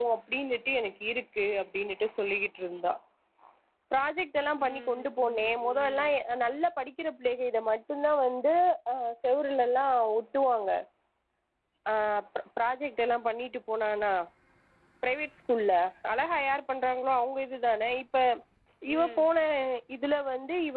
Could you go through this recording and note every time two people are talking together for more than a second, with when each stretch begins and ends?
4.6-6.0

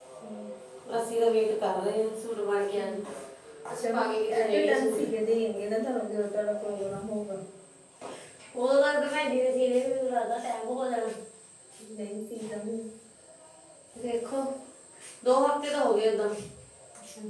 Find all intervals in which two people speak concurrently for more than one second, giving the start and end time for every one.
3.8-5.0

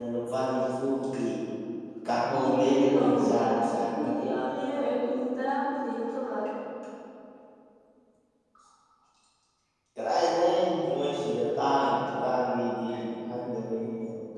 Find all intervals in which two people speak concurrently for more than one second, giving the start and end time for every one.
2.4-4.1

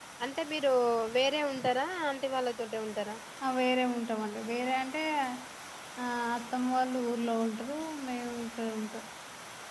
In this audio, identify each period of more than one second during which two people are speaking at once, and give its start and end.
none

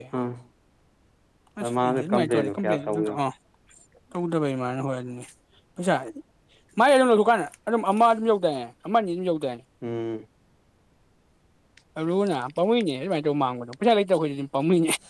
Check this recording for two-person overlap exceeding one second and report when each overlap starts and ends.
1.8-3.1

